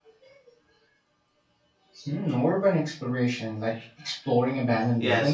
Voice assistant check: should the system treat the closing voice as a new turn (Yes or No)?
Yes